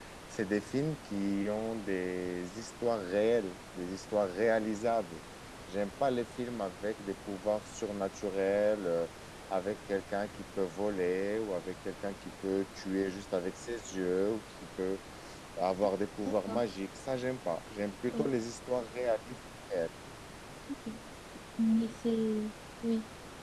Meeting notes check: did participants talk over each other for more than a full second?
No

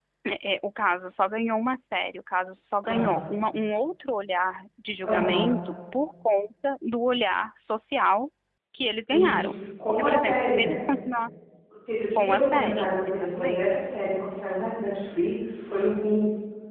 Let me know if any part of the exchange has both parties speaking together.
Yes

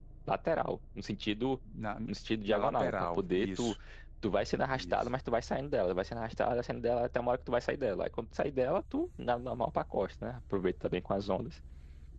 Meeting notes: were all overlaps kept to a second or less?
No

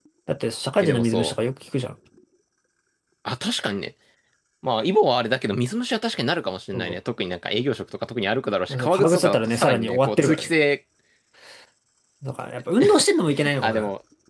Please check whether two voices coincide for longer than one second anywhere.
Yes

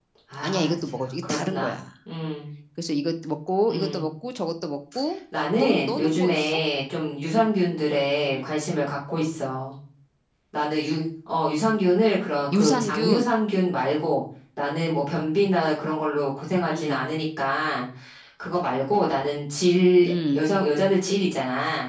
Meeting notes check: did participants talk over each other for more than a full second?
Yes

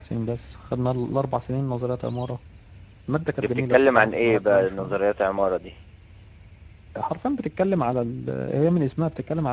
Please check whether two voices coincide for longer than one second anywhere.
Yes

